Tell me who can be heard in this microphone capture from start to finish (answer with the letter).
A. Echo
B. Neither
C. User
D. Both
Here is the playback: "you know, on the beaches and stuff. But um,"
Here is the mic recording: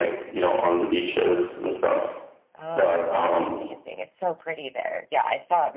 D